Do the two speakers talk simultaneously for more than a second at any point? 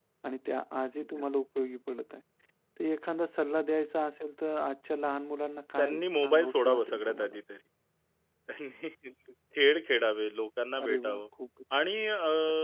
Yes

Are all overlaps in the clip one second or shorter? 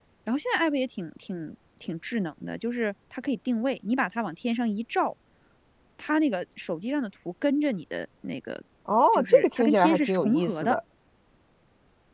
No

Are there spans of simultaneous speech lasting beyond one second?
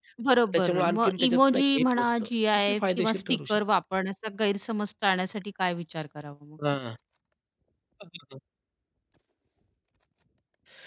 Yes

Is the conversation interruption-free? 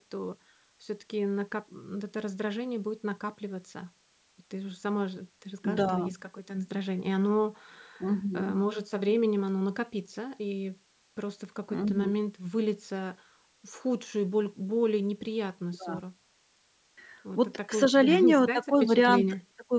No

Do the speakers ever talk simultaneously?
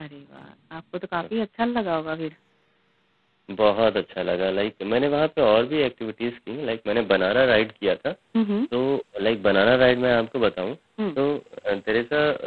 No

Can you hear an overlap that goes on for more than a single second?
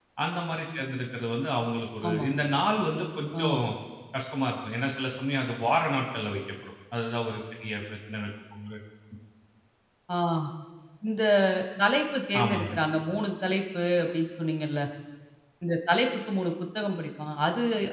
No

